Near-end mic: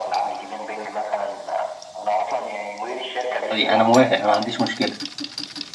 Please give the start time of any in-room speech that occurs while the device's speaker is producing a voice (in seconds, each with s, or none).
3.5 s